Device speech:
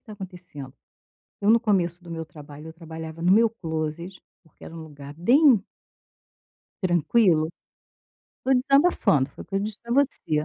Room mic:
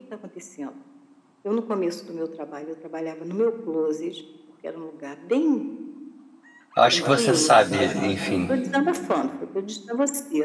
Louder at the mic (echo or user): user